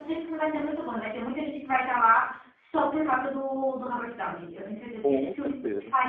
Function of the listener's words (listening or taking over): listening